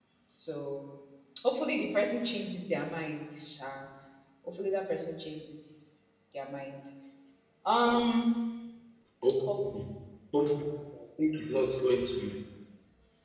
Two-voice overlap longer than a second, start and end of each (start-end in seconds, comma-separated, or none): none